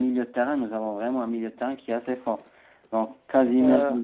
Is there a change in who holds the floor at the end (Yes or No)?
No